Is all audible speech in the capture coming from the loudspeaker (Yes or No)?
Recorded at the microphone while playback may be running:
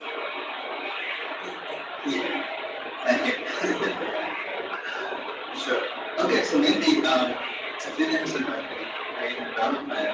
Yes